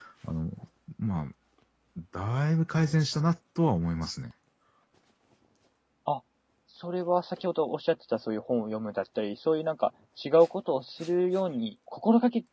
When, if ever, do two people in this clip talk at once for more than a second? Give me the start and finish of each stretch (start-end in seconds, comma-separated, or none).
none